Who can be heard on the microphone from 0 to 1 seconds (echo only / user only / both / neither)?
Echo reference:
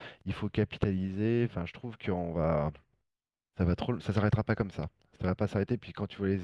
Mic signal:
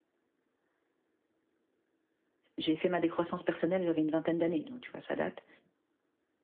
neither